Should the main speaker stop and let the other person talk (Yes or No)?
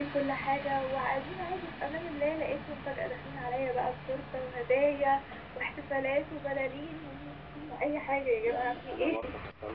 Yes